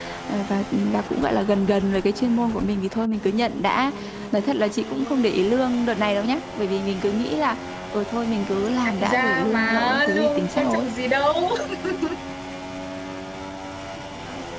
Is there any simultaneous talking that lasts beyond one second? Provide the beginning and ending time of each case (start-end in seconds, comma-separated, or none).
8.7-10.9